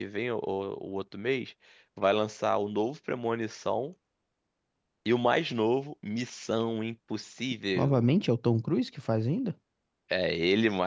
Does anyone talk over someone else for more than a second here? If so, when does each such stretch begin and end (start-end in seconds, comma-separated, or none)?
none